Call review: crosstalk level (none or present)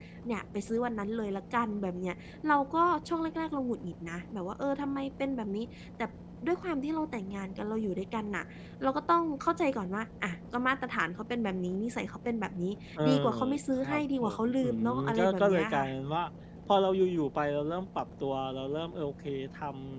present